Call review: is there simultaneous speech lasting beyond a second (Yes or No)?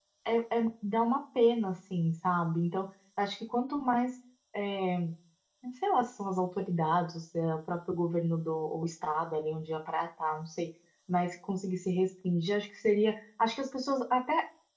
No